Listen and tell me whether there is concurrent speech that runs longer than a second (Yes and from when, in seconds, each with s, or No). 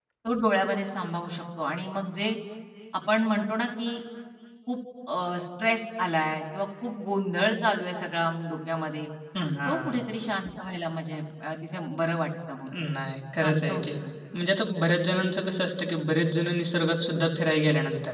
No